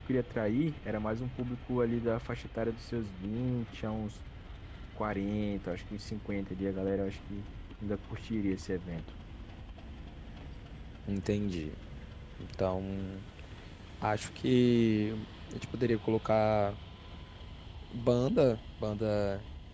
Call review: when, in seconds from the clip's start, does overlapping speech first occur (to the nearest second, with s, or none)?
none